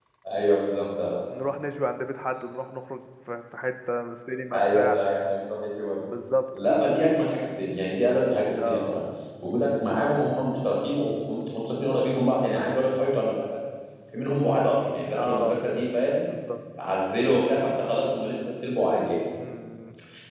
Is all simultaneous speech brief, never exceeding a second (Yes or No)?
Yes